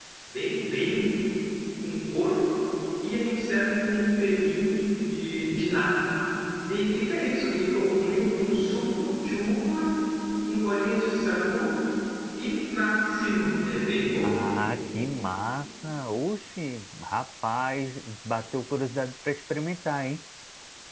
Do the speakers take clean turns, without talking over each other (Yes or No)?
Yes